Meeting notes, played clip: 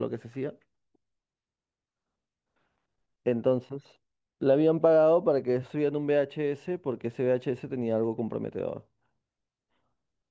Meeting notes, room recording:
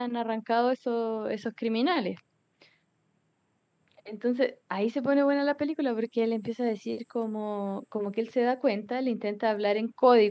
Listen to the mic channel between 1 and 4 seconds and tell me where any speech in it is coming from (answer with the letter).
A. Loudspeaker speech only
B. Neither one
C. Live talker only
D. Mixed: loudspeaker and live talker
C